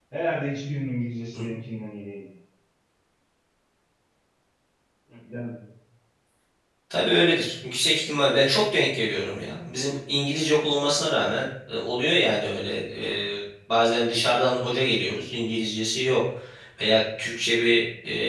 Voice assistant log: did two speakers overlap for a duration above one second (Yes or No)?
No